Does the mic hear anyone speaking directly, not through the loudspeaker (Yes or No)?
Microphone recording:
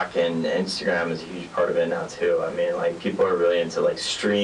No